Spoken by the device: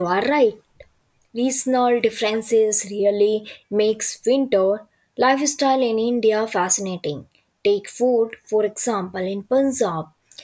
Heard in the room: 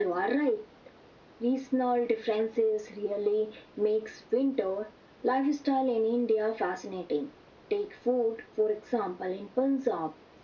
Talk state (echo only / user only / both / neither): echo only